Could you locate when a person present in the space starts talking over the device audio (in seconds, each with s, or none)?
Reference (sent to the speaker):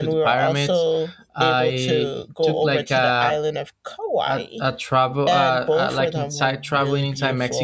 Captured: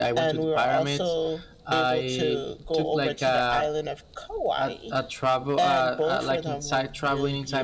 none